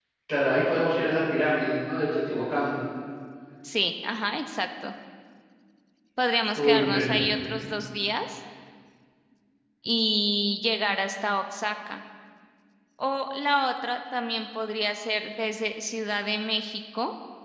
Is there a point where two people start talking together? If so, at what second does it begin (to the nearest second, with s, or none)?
7 s